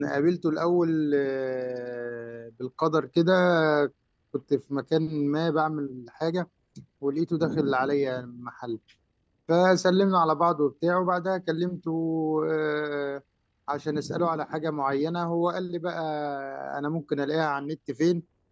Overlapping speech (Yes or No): No